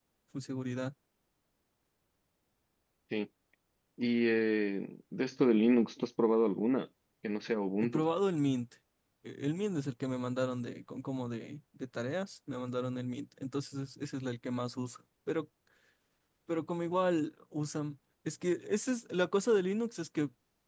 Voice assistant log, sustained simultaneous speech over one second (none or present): none